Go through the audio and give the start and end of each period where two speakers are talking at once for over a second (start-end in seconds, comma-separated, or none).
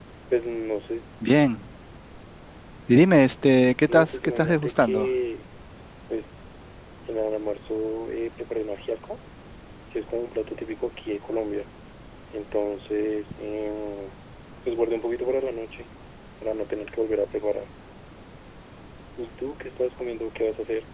3.9-5.1